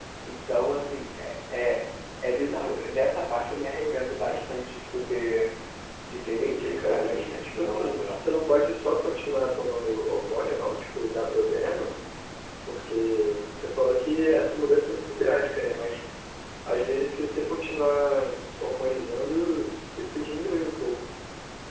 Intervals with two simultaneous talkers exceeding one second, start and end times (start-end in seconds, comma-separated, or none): 6.4-8.2